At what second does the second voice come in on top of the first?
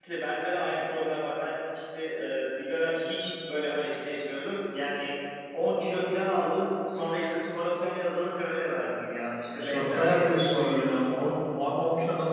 9.6 s

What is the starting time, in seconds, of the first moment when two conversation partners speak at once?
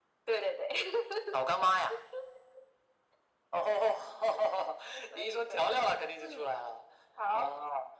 5.2 s

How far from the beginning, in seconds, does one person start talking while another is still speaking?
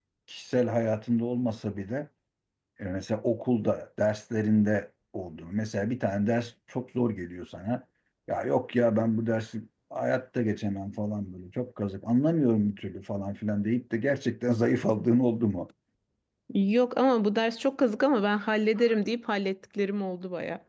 none

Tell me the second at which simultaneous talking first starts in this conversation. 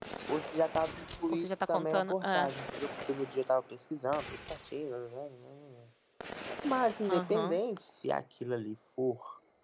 1.3 s

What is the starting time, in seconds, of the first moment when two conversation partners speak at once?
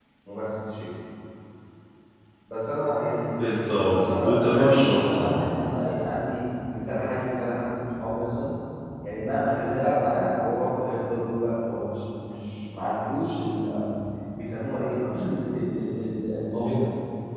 3.9 s

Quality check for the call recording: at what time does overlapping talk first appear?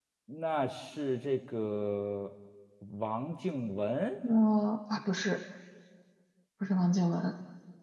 none

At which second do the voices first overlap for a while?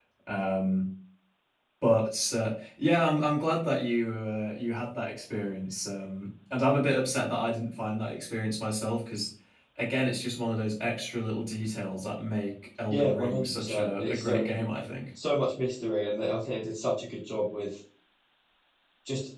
12.9 s

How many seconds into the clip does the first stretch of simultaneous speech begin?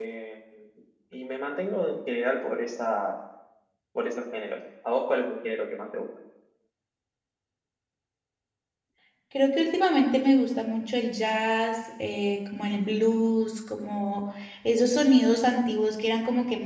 none

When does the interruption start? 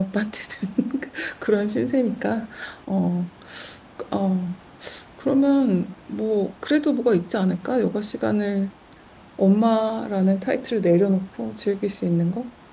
none

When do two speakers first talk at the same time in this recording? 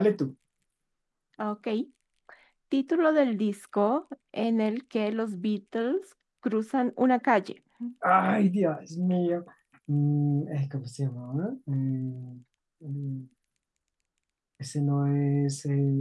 none

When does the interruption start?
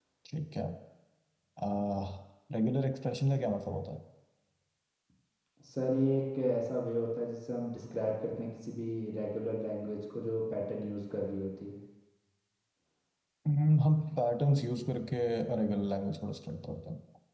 none

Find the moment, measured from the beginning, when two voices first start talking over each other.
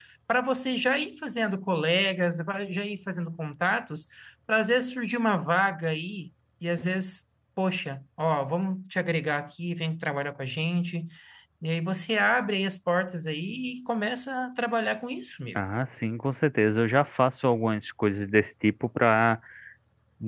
none

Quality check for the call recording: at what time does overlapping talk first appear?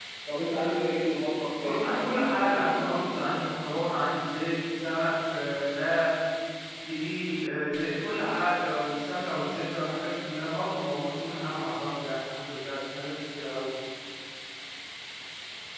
1.6 s

